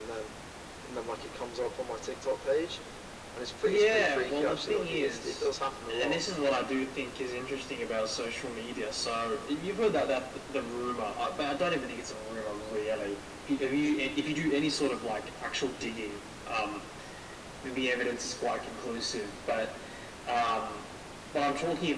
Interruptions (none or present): present